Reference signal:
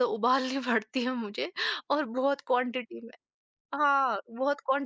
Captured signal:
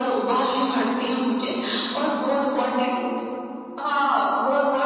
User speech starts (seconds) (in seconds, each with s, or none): none